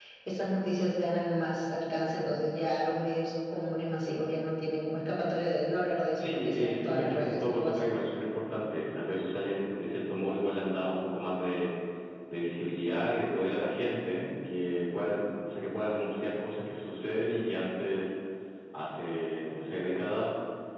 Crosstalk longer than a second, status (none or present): present